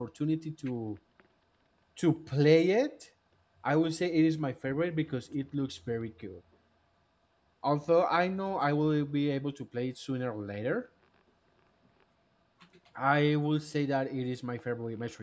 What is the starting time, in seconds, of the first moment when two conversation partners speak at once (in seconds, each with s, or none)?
none